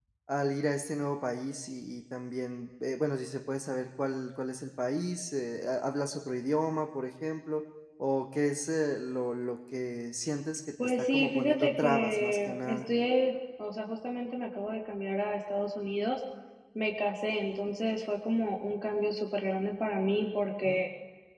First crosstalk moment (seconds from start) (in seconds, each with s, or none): 10.8 s